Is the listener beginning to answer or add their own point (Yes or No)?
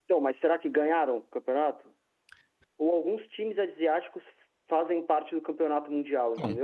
Yes